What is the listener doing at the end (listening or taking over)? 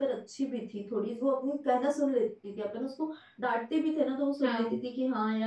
listening